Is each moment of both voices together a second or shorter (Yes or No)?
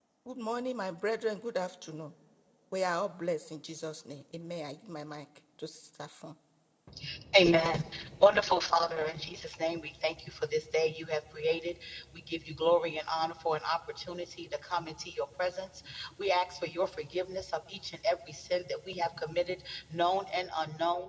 Yes